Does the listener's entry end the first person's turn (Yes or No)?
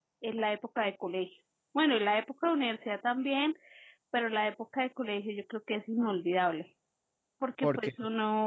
No